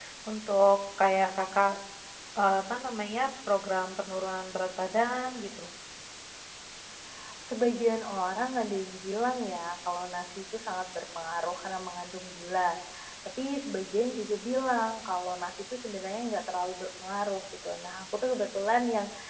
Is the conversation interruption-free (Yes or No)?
Yes